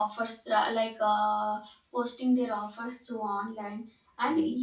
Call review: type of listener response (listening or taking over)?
listening